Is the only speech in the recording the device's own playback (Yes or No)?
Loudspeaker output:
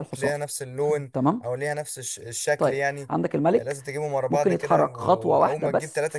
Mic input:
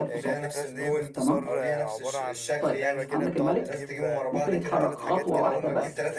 No